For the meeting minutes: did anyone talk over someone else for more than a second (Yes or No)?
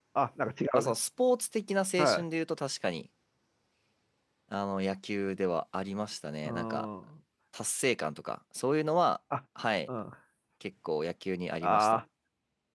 No